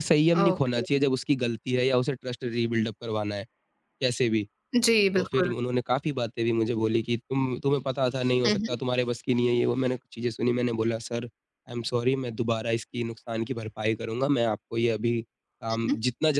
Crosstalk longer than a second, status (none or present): none